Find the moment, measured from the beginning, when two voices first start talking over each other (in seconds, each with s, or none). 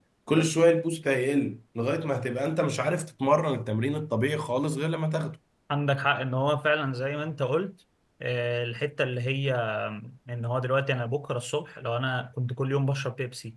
none